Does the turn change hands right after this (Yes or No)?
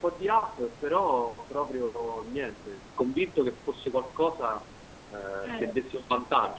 No